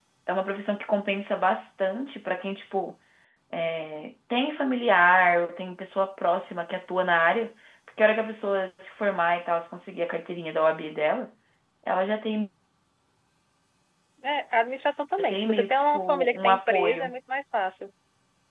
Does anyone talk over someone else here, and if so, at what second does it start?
15.2 s

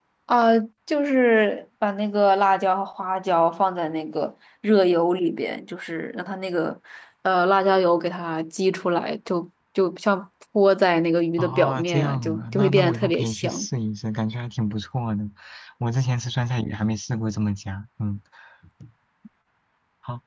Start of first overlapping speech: 11.4 s

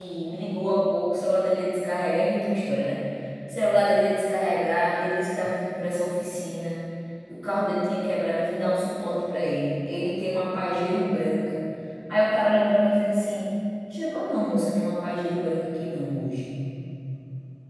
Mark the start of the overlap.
none

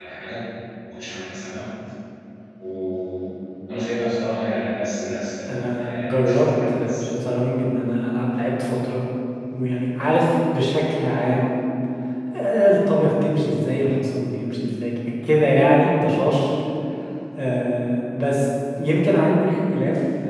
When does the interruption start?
5.5 s

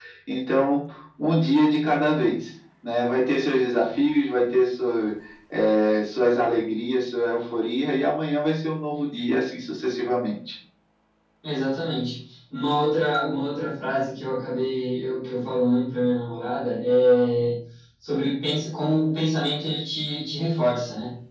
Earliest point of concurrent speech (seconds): none

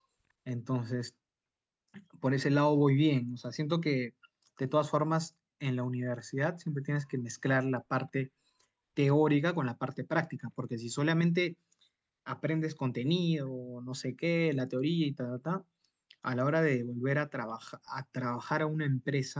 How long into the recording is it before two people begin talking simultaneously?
none

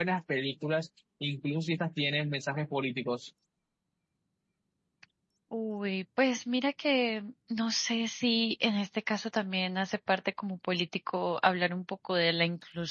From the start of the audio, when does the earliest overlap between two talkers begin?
none

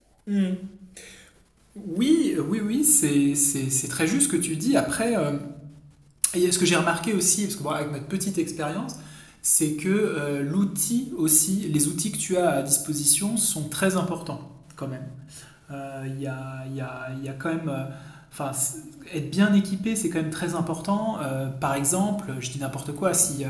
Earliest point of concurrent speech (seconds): none

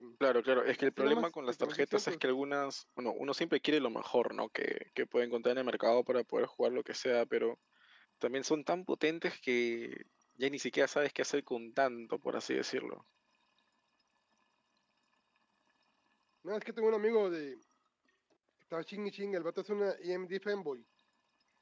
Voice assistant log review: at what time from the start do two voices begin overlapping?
0.8 s

